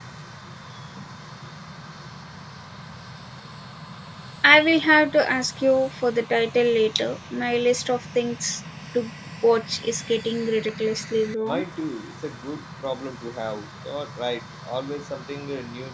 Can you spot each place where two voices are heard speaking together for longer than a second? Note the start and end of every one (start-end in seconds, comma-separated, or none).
none